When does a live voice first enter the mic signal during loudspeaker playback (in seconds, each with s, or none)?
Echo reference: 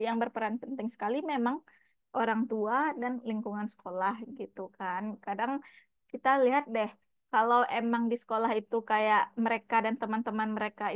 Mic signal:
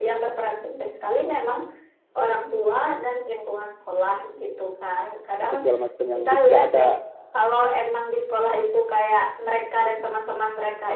5.4 s